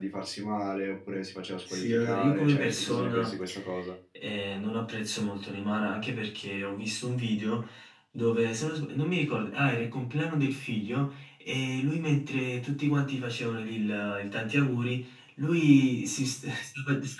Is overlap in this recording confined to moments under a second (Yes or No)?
No